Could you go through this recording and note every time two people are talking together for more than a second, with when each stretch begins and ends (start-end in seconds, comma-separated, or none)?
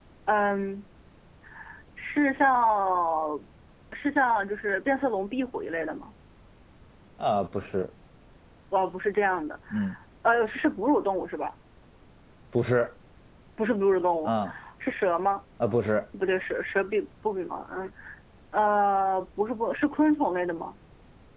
none